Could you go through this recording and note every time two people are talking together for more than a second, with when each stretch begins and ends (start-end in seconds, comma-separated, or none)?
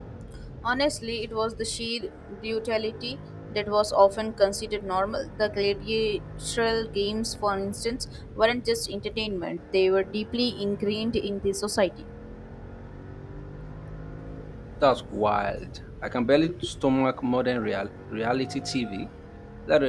none